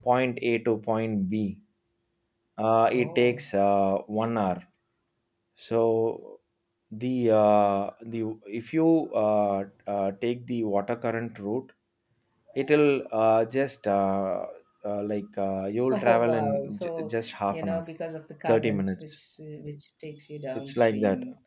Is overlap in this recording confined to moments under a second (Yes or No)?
No